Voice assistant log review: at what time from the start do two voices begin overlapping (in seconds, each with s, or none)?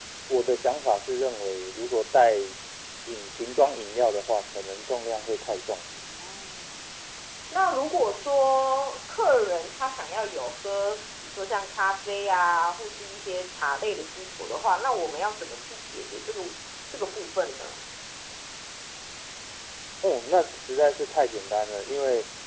none